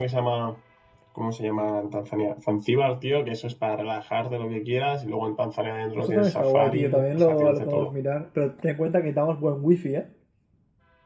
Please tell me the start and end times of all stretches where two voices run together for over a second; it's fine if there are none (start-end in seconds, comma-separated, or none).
6.0-7.9